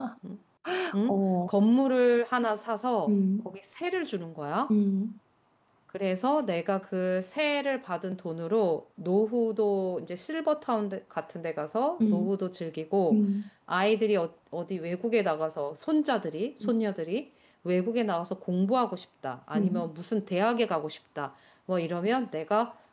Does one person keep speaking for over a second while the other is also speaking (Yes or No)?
No